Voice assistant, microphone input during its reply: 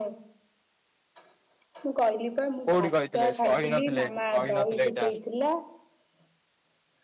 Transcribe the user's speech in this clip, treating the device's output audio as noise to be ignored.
କୋଉଠି କହିଥିଲେ କହିନଥିଲେ କହିନଥିଲେ ଏଇଟା।

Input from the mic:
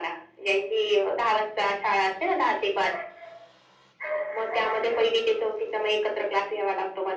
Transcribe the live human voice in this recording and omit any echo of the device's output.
none

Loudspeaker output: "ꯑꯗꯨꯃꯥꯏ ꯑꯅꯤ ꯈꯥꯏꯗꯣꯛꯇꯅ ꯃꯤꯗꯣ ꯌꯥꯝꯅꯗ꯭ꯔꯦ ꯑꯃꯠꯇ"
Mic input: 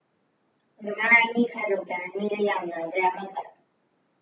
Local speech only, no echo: none

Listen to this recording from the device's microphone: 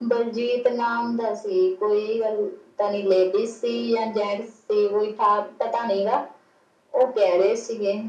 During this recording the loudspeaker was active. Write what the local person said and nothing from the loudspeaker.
none

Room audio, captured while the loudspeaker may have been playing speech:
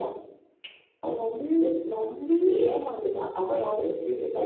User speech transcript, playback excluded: none

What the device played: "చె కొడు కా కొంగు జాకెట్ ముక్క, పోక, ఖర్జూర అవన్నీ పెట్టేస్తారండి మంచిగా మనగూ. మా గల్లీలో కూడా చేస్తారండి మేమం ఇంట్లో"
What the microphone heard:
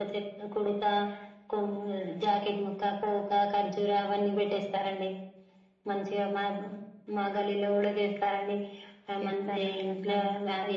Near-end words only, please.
చేస్తారండి అట్లానే

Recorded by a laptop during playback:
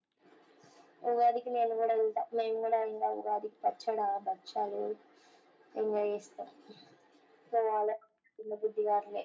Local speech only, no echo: none

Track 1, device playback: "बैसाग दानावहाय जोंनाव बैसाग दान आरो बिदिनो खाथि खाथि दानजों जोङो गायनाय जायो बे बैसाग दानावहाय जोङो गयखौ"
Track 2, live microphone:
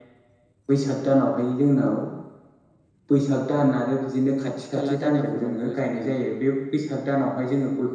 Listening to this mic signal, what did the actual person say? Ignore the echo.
खाथि खाला जायगाफोरावबो जोङो

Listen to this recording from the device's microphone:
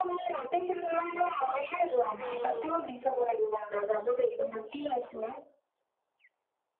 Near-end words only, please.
উম,

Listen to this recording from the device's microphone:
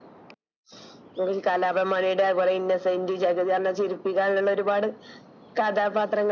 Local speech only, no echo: none

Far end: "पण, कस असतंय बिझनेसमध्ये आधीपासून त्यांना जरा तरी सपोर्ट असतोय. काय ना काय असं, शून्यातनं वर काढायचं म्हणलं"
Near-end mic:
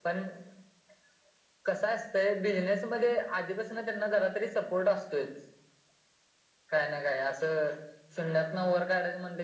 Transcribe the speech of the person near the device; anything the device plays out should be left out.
none

